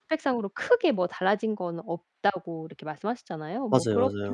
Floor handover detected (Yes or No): No